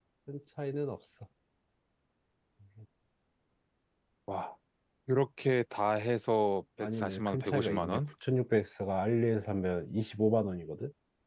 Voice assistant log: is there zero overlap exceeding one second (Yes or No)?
No